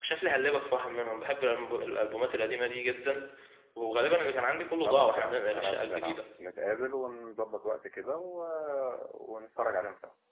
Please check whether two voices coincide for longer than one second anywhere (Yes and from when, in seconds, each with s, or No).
Yes, from 4.8 s